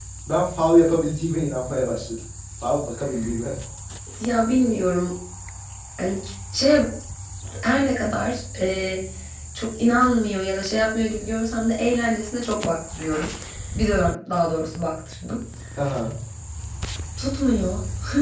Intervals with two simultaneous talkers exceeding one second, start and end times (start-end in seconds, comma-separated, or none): none